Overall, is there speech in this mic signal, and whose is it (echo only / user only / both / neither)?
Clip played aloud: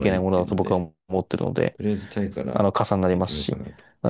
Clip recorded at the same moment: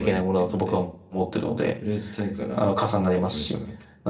echo only